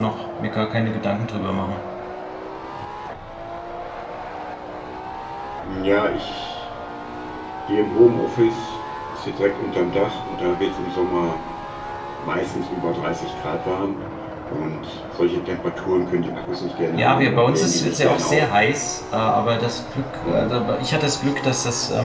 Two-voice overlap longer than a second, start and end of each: 16.9-18.5

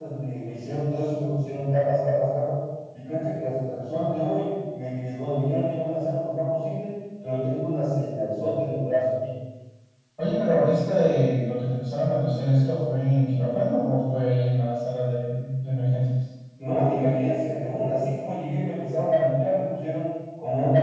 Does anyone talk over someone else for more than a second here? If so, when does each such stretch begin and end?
none

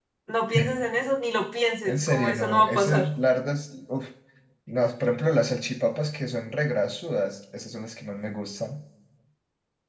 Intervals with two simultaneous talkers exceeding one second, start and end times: 1.9-3.1

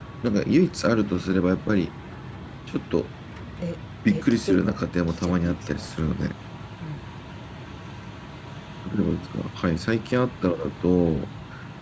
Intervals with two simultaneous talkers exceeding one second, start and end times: 4.1-5.9

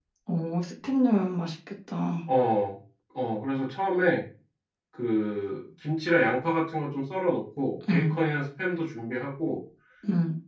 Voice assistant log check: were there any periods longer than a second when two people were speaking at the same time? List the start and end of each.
none

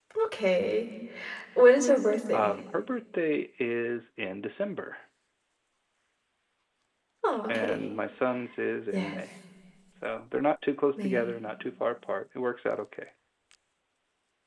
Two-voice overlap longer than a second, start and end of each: none

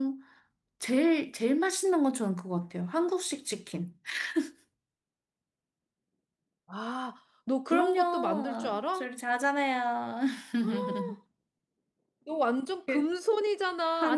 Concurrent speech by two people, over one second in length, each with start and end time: 7.7-9.1

